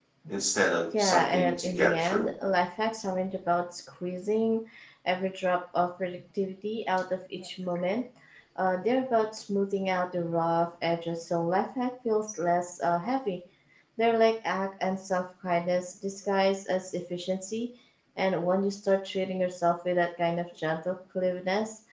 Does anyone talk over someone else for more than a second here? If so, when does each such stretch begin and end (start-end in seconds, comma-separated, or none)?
0.9-2.3